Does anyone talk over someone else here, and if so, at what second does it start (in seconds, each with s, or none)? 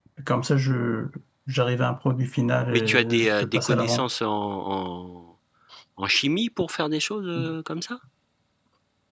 2.7 s